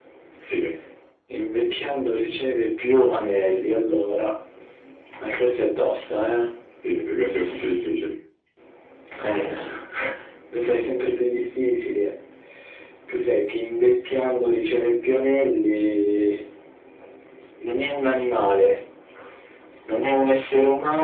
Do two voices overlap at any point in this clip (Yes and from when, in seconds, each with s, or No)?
No